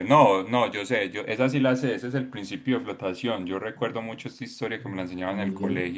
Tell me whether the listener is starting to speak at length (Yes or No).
No